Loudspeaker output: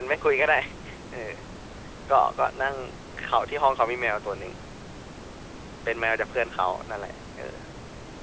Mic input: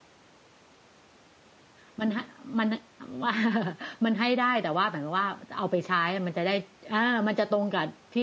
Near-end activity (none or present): present